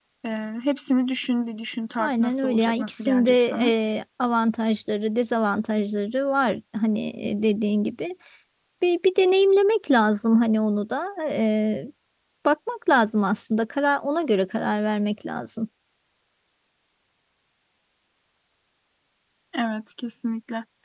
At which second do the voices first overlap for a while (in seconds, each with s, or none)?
2.0 s